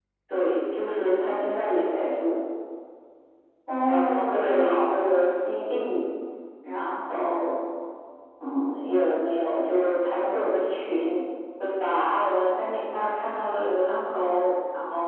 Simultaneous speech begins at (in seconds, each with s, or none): 3.8 s